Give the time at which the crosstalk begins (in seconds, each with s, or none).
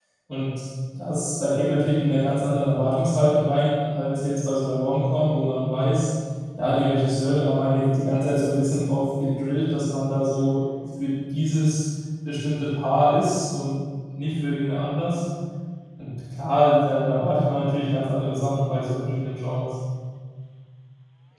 none